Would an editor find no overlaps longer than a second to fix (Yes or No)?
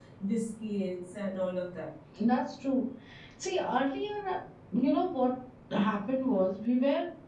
Yes